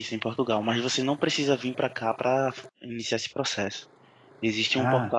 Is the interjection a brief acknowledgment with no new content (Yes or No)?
Yes